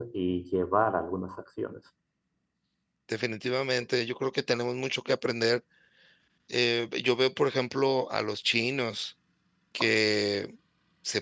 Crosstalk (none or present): none